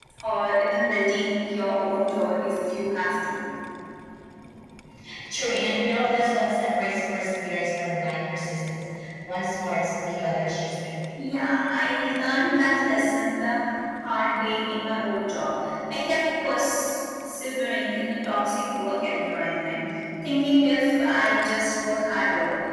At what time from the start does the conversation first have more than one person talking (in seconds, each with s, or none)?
none